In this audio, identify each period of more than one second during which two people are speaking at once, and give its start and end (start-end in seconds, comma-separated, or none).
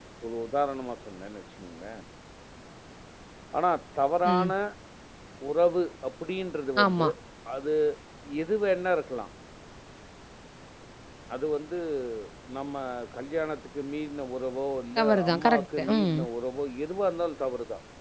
15.0-16.2